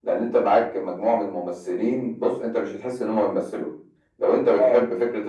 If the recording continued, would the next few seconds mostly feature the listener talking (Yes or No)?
No